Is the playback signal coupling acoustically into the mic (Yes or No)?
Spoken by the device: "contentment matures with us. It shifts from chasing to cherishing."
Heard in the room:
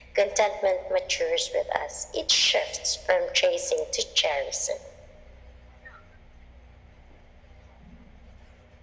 Yes